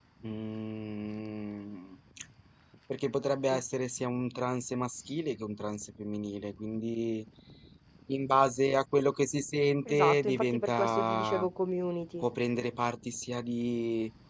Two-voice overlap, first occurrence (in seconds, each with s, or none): 9.8 s